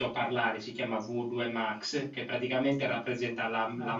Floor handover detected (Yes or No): No